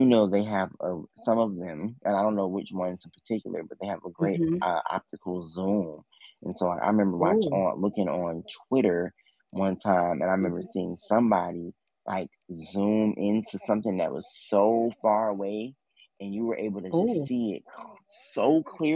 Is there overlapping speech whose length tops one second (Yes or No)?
No